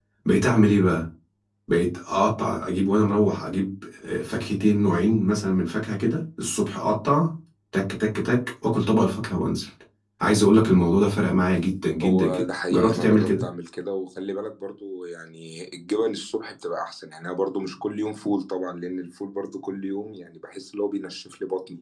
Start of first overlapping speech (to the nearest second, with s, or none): 12 s